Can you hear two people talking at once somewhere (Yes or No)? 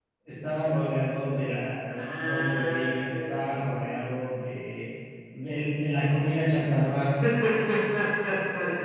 Yes